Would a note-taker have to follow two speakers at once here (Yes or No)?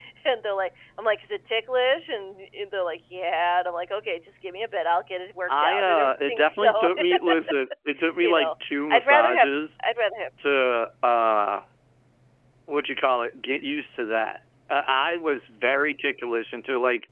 Yes